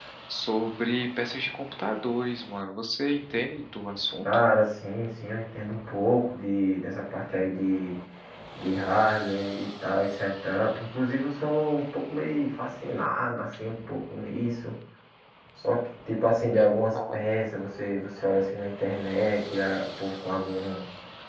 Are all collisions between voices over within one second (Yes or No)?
Yes